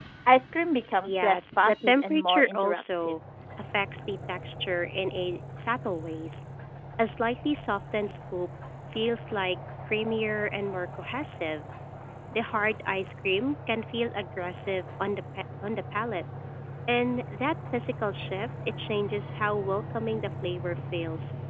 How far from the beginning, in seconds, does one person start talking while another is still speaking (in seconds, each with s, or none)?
1.0 s